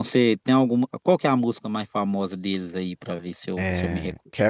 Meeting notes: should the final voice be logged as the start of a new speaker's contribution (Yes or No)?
Yes